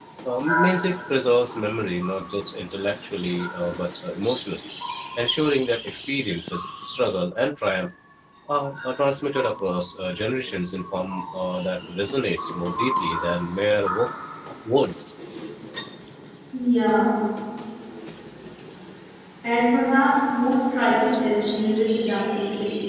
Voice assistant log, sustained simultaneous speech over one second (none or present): none